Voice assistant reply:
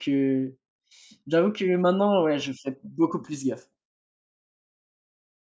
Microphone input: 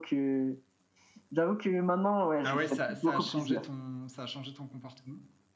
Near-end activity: present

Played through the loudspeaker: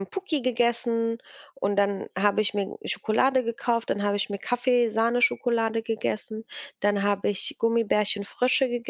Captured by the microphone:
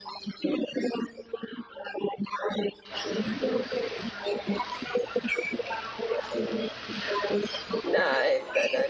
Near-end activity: present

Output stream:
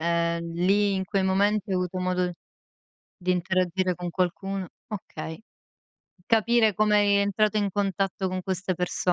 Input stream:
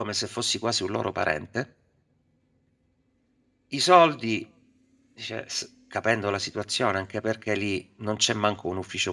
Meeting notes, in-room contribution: present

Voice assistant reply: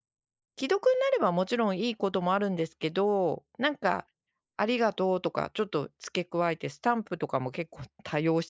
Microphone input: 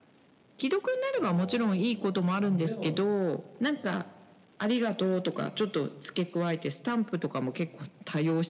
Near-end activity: present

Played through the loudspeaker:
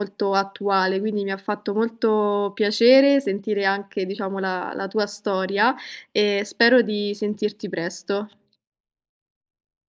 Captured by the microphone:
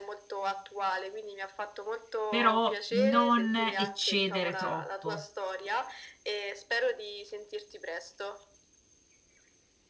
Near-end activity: present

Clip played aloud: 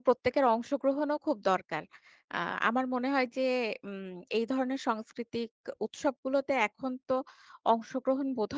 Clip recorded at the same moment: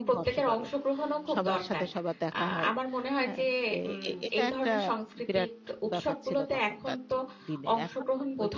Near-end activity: present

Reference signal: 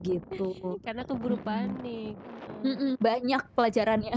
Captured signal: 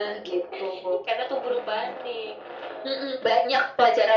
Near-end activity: none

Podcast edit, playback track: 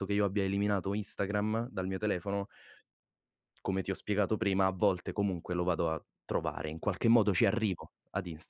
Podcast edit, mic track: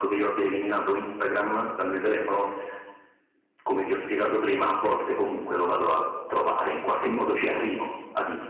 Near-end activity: none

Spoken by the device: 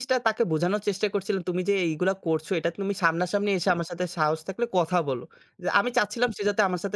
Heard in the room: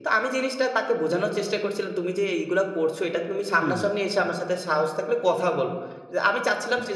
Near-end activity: present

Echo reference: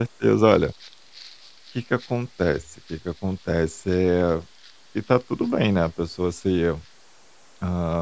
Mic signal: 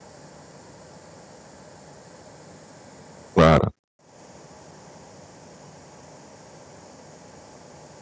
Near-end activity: present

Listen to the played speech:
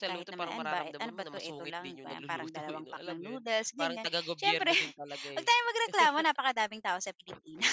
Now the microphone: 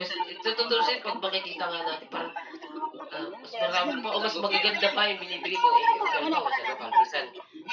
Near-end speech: present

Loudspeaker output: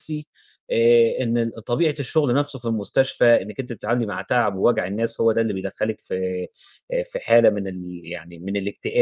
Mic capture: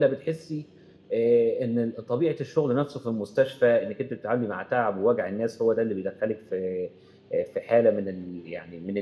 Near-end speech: none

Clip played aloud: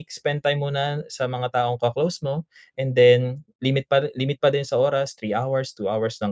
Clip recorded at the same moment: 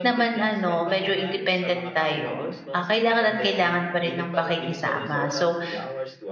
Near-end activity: present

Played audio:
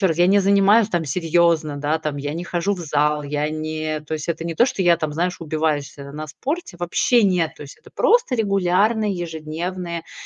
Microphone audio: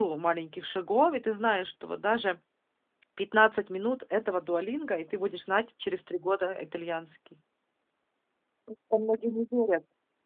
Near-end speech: present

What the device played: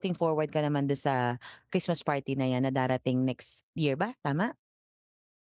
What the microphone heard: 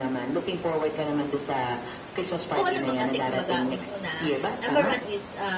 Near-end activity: present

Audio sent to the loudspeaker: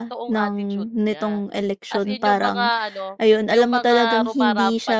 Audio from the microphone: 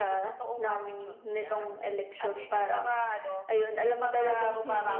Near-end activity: none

